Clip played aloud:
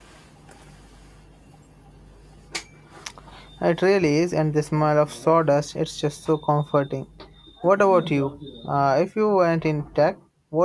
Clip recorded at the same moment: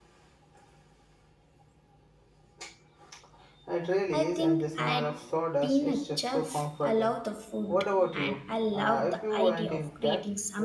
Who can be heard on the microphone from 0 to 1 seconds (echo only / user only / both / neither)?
neither